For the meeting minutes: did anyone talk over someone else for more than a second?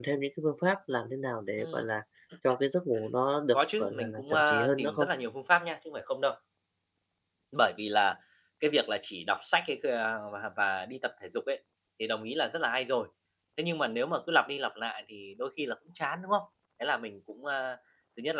Yes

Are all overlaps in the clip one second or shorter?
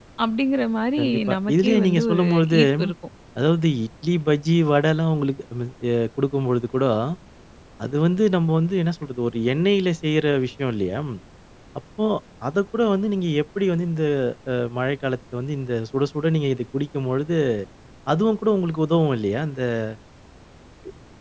No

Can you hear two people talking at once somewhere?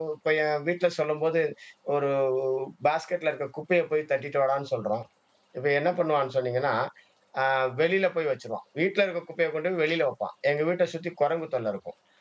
No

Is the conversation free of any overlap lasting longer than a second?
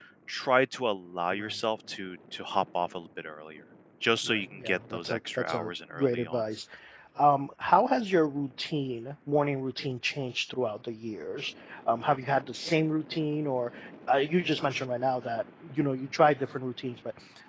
No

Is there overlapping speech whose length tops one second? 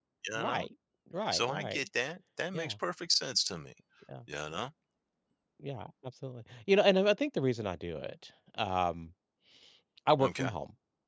No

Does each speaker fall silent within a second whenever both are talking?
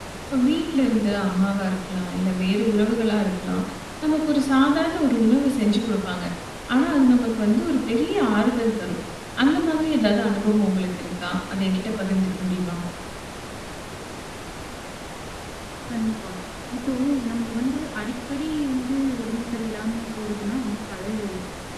Yes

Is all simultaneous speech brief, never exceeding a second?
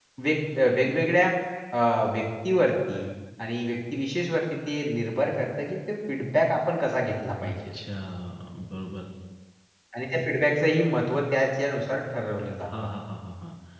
Yes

